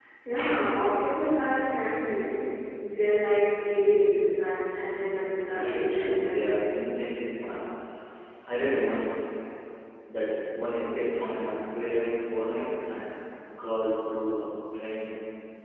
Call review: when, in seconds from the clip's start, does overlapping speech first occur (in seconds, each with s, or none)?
5.5 s